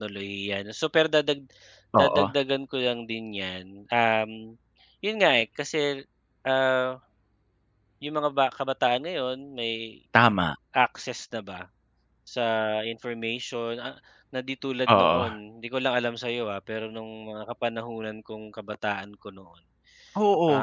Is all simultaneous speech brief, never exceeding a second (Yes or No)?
Yes